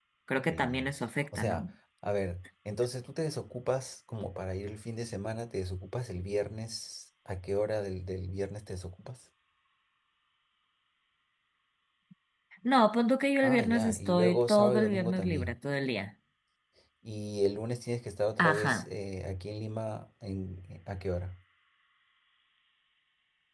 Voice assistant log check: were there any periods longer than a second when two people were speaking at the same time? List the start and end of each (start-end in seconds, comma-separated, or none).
13.4-15.6